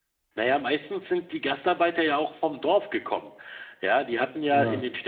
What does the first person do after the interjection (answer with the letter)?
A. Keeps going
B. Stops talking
A